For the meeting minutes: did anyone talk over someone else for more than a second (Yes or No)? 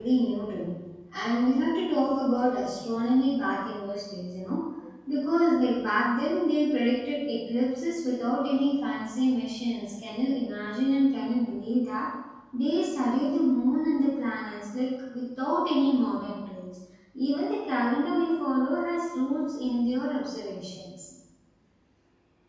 No